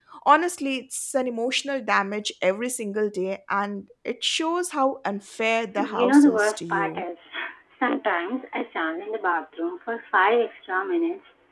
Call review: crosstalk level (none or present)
present